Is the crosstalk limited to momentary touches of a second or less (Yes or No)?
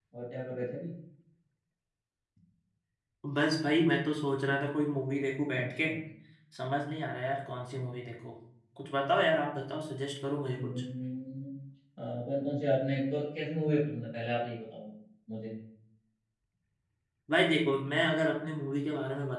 Yes